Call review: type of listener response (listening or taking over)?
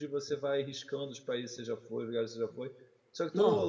listening